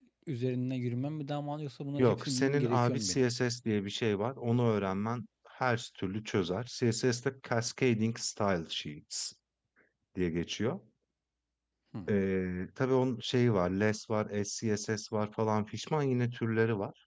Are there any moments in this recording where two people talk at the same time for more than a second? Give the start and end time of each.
2.0-3.2

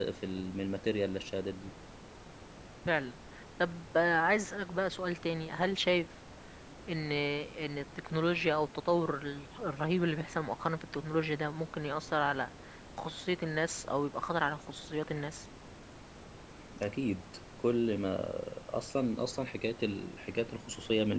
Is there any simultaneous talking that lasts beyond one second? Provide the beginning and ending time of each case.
none

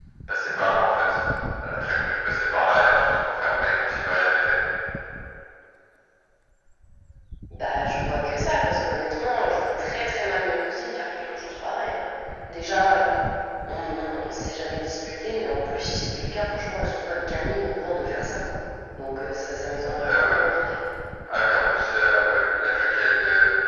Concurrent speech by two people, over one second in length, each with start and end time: none

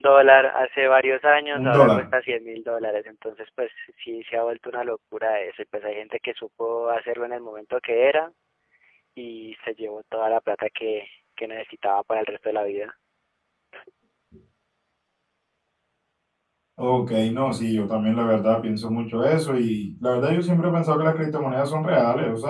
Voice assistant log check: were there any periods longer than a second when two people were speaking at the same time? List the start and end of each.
none

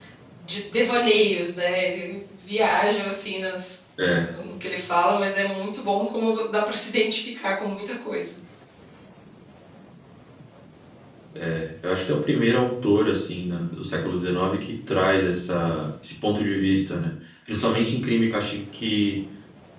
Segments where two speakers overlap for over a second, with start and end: none

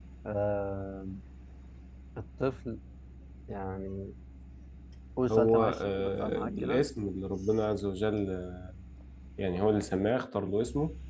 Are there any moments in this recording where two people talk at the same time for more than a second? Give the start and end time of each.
5.3-6.8

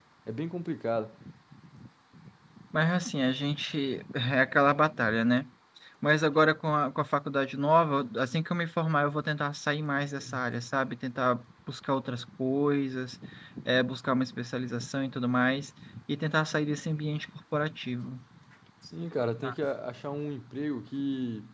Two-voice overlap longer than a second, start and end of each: none

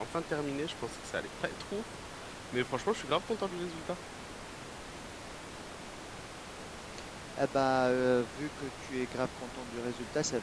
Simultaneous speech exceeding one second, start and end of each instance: none

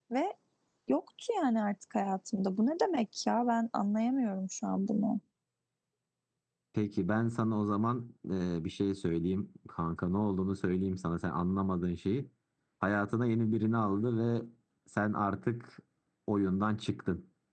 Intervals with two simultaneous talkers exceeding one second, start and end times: none

